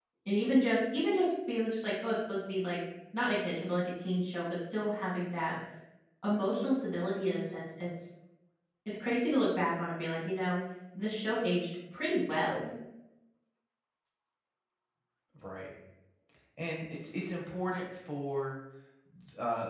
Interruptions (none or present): none